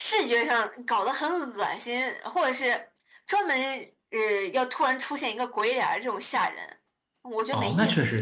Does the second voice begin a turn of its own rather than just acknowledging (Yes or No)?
Yes